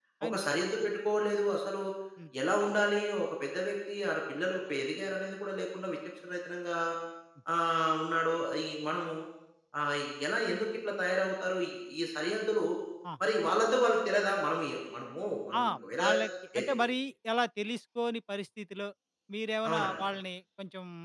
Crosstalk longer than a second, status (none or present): none